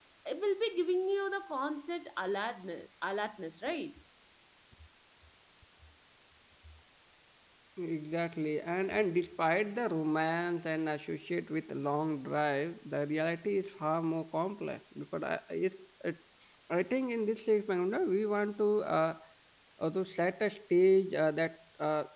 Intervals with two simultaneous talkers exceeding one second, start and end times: none

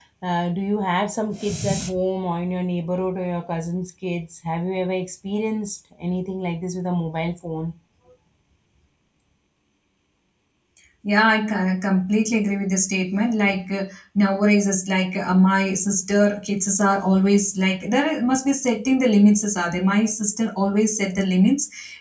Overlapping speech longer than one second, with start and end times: none

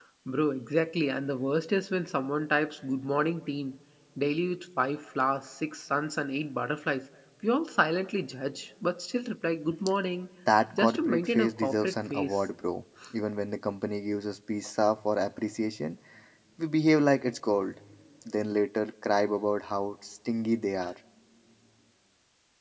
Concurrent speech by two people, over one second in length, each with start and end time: 10.8-12.4

